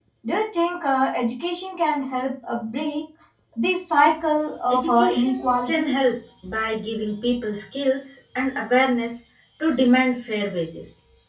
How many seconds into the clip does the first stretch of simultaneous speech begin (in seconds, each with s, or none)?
4.7 s